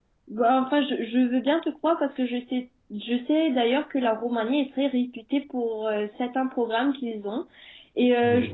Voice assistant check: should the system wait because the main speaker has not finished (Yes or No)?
Yes